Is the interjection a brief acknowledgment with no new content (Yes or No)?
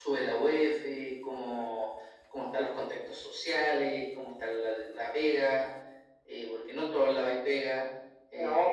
No